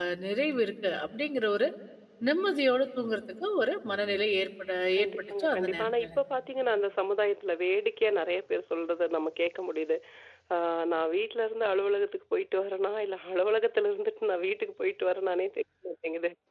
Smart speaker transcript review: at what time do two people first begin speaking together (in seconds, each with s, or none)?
4.9 s